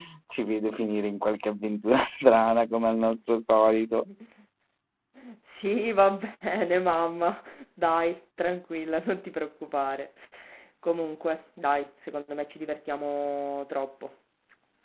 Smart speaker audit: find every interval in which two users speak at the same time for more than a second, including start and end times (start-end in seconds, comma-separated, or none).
none